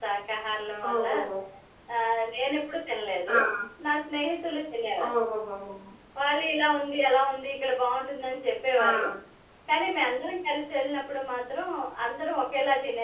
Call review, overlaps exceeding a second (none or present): none